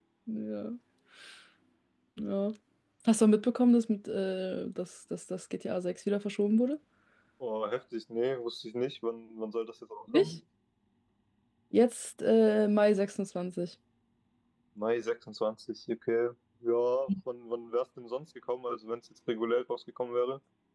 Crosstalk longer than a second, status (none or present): none